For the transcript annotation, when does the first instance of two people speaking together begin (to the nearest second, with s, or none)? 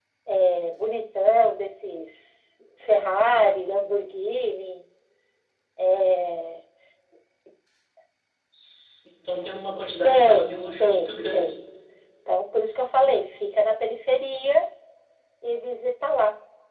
10 s